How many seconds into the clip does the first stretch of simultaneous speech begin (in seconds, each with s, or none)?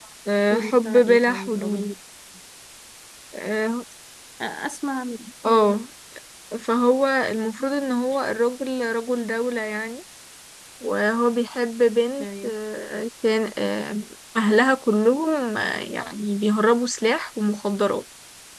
0.5 s